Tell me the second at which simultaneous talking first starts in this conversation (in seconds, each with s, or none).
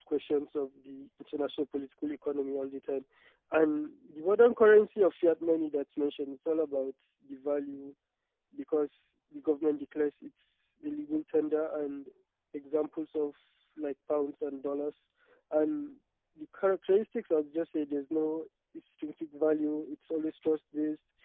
none